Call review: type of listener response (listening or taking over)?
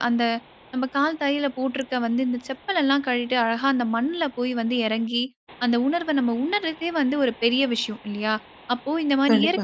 listening